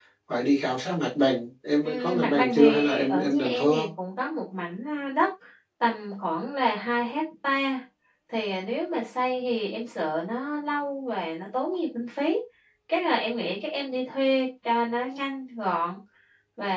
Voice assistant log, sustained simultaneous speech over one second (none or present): present